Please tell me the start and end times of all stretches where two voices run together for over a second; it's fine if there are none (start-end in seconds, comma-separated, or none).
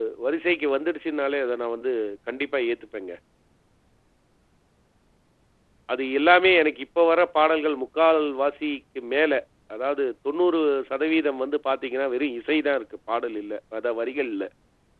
none